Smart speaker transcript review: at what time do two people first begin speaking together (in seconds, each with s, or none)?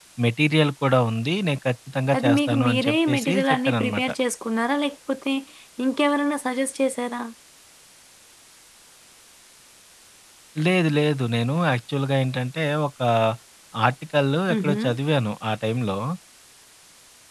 2.1 s